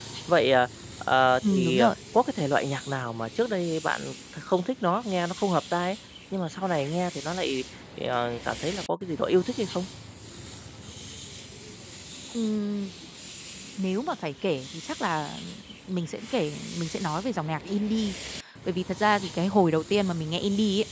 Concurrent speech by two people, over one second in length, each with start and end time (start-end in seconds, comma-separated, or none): none